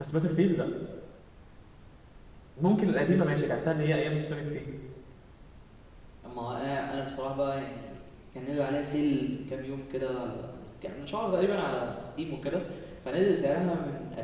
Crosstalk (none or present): none